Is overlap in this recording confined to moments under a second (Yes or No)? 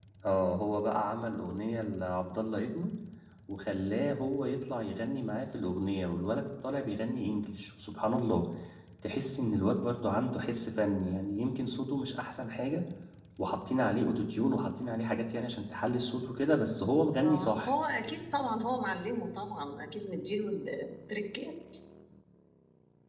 Yes